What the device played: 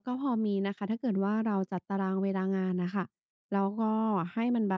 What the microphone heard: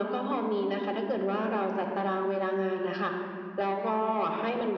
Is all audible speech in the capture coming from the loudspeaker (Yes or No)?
Yes